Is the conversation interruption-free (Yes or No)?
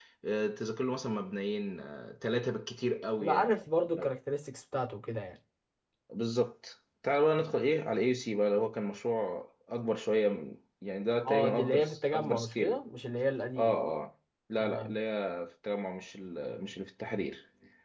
No